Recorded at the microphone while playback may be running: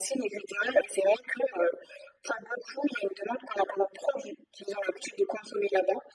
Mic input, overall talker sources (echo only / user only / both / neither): echo only